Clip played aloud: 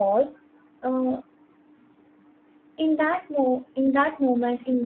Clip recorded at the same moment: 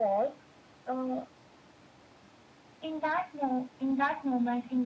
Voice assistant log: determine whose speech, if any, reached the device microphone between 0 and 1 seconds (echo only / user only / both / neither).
echo only